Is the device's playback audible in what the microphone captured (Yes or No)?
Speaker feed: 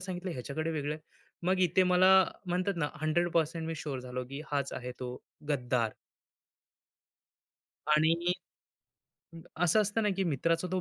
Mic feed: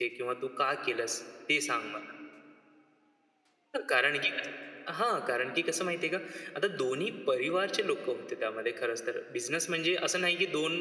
No